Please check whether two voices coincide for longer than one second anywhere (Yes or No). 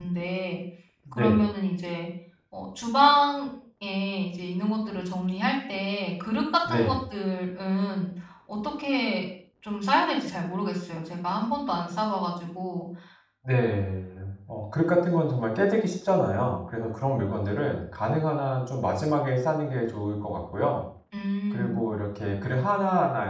No